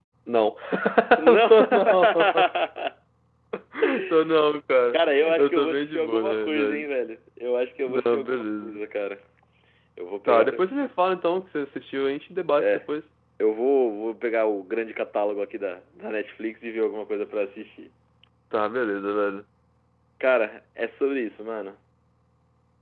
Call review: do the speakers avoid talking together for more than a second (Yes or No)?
No